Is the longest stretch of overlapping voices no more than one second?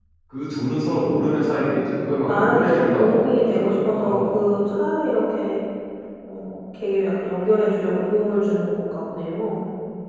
No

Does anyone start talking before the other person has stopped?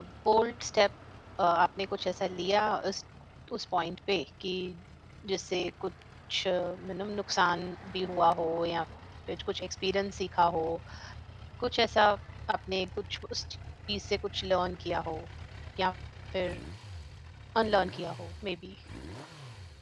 No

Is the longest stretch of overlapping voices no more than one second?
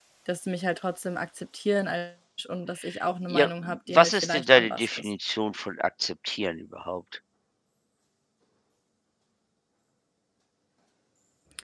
No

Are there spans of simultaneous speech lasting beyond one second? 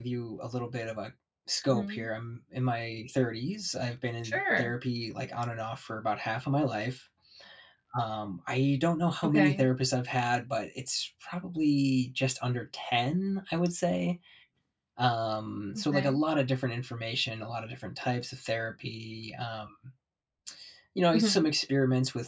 No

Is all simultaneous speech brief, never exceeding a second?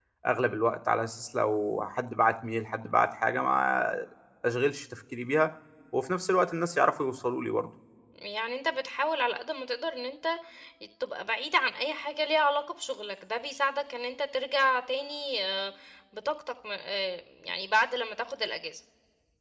Yes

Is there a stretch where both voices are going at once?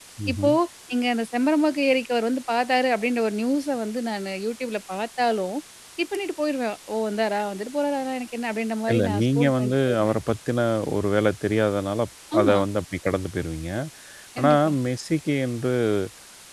Yes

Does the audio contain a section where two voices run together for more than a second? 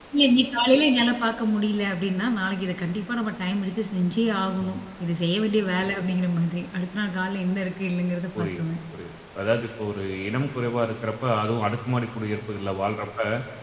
No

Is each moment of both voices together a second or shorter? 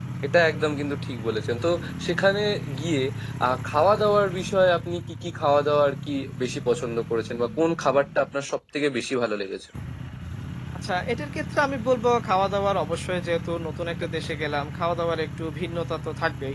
Yes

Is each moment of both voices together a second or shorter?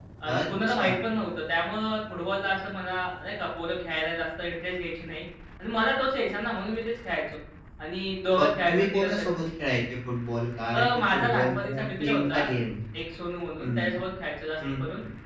No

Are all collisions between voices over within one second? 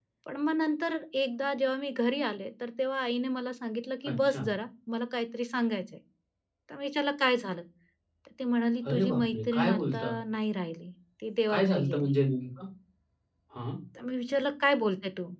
No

